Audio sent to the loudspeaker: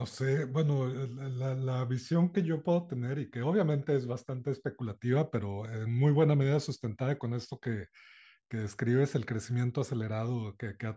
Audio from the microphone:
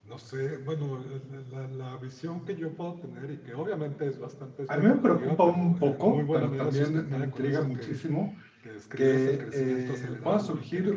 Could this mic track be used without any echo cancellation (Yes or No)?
No